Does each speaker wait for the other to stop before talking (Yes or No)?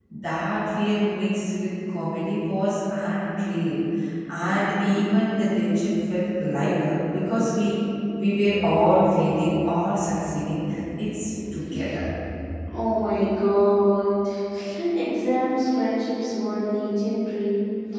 Yes